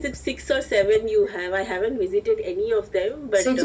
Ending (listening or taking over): taking over